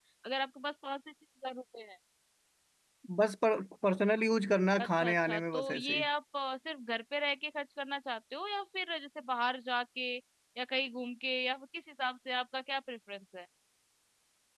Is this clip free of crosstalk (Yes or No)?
No